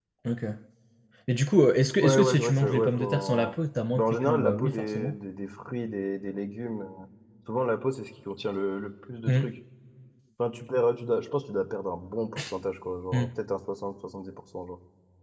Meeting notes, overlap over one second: present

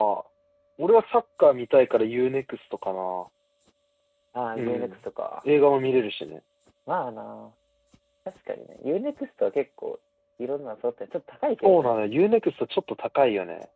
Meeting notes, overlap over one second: none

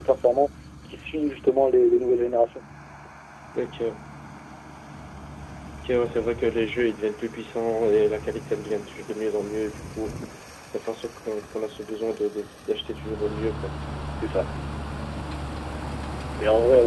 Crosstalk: none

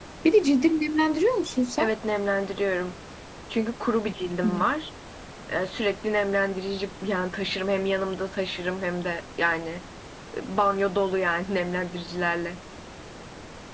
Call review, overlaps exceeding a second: none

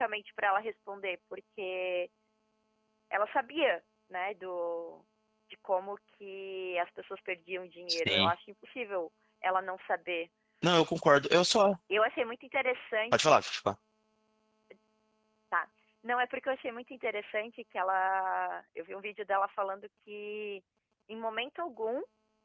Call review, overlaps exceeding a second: none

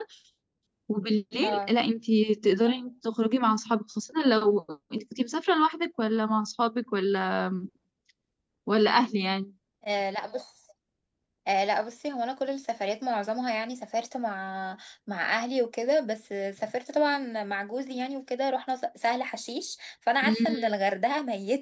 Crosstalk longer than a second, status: none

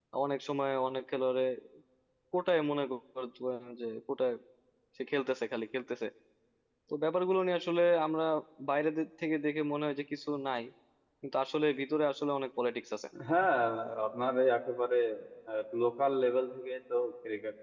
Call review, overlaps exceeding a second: none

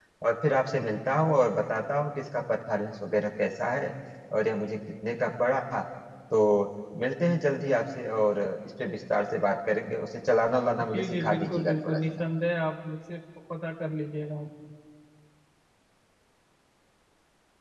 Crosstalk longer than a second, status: present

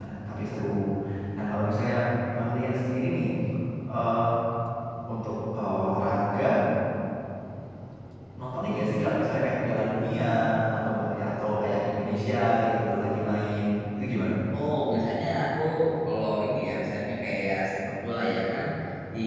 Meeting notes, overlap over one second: none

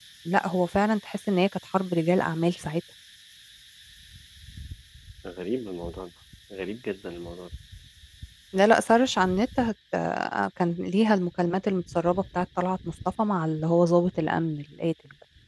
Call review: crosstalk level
none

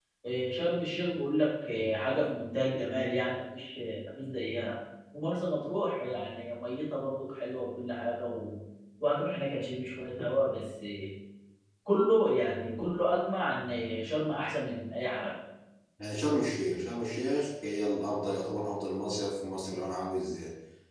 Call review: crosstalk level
none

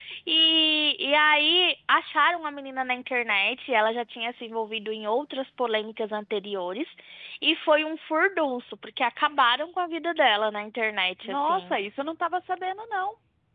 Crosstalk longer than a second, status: none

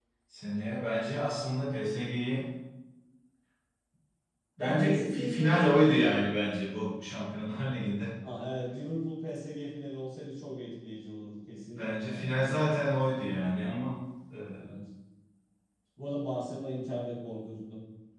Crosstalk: present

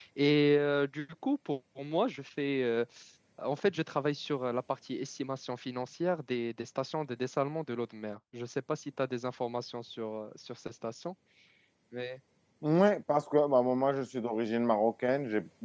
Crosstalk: none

